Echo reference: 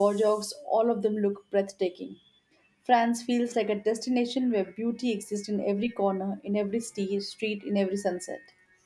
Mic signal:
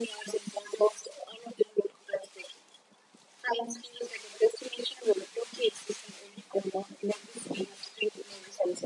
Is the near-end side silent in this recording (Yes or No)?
Yes